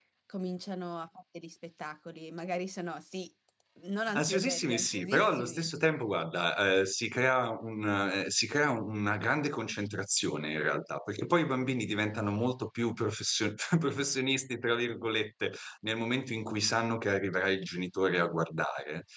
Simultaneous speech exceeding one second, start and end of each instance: 4.1-5.7

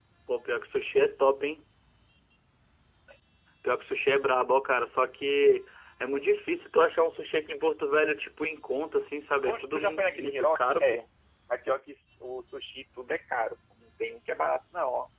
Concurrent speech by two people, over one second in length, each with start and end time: 9.4-11.0

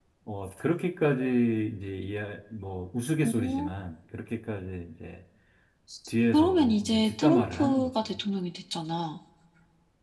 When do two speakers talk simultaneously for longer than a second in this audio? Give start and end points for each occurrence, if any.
6.3-7.9

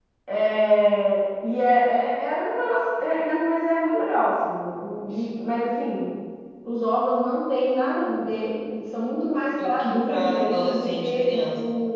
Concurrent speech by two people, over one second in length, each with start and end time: 9.6-11.4

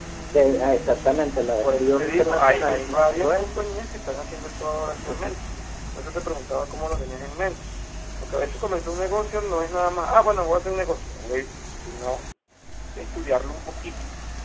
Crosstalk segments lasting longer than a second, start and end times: 1.6-3.7

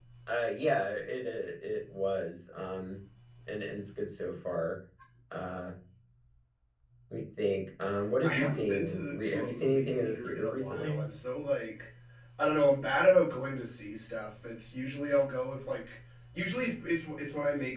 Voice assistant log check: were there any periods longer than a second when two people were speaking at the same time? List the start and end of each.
8.2-11.1

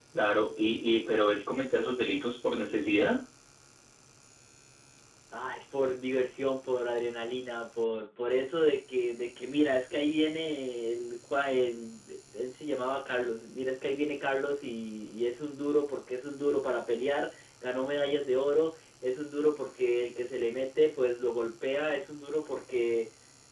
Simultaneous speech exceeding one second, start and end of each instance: none

